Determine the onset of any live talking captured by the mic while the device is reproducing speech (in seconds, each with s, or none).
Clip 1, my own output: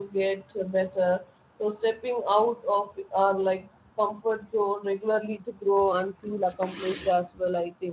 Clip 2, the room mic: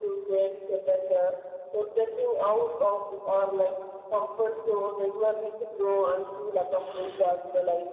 none